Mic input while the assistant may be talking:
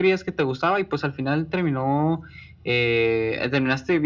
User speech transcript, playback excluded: none

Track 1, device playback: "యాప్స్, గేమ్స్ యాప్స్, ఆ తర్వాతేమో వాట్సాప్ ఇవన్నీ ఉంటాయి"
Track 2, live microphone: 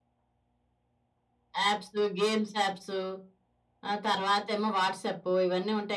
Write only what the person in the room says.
none

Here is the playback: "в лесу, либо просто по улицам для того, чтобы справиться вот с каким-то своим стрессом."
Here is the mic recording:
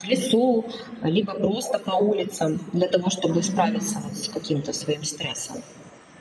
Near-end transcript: мгм.

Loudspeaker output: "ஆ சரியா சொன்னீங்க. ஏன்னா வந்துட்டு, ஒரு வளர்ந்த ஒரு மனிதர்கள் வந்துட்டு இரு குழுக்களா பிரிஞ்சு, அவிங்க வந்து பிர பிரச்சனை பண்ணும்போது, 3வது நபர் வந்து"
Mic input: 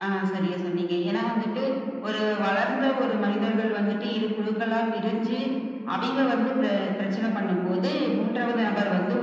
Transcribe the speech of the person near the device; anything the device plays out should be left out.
none

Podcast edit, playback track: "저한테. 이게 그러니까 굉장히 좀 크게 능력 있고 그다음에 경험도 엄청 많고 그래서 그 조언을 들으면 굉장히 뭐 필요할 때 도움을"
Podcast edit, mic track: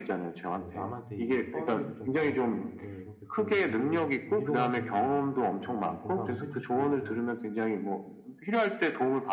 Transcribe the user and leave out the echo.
뭐 남한테 얘기를 꺼내기도 좀 그렇고 그런데 이렇게 또 위로를 해 위로가 되는 말을 이렇게 좀 공감을 해 주시고 이래서

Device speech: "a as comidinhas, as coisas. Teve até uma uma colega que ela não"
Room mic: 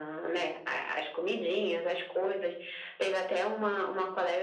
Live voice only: none

